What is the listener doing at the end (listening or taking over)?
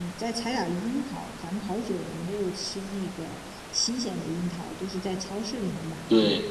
taking over